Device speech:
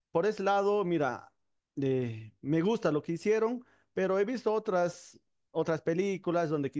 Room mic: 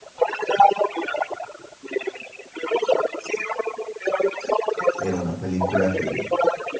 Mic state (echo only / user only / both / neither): both